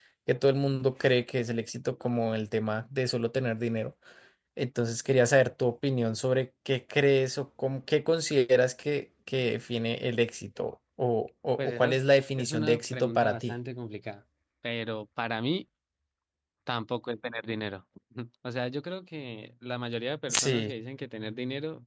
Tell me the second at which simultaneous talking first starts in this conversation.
11.6 s

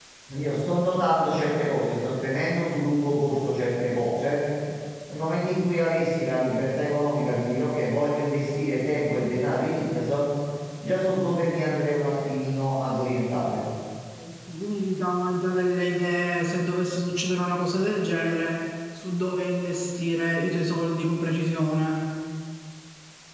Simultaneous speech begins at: none

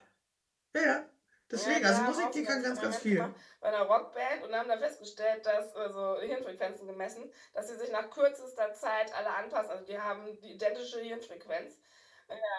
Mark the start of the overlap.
1.5 s

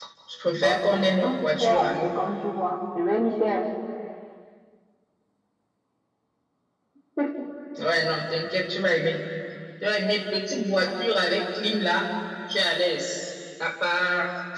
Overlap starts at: 0.6 s

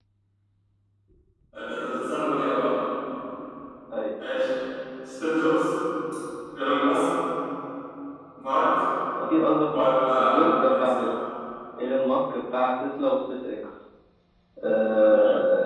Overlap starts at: 9.7 s

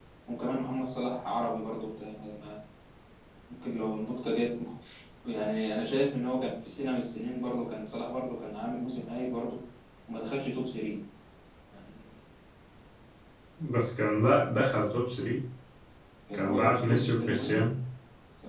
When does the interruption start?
16.3 s

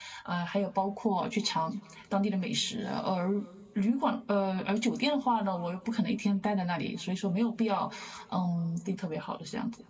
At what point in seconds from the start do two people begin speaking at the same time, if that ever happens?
none

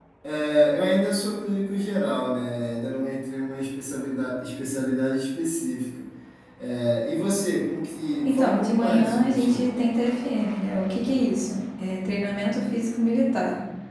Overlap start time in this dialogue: 8.2 s

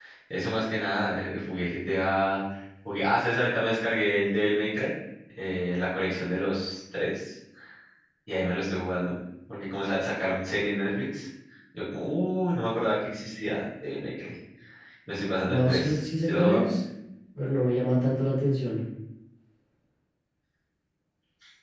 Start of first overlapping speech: 15.4 s

